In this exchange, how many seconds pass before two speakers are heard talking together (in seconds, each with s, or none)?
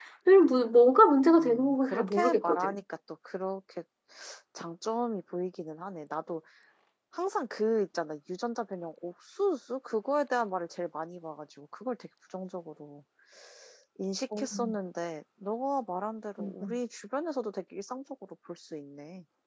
1.4 s